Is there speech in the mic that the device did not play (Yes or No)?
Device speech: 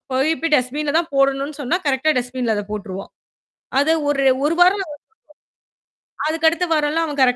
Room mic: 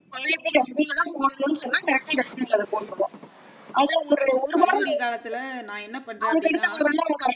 Yes